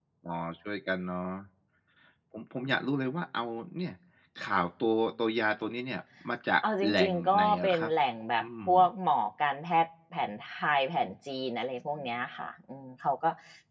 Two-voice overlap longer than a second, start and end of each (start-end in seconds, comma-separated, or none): 6.6-7.9